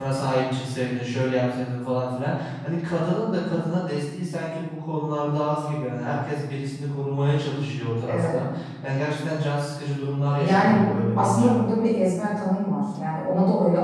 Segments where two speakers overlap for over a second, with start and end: 10.3-11.6

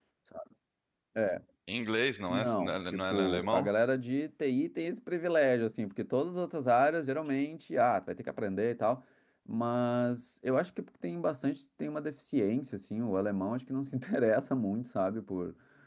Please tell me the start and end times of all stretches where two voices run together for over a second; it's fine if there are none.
2.3-3.7

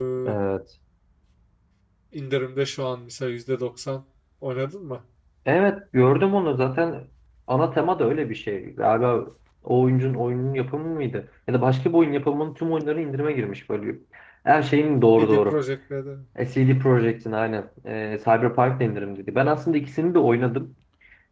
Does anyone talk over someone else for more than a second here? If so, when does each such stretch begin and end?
none

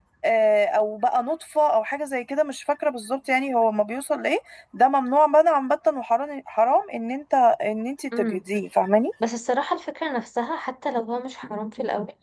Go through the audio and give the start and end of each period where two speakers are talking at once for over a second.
none

